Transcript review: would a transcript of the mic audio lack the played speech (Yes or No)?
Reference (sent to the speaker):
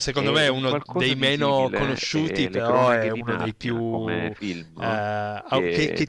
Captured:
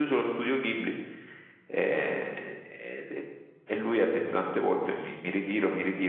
Yes